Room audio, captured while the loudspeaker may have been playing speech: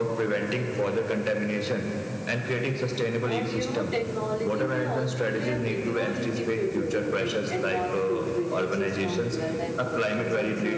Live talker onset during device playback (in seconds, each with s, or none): 3.2 s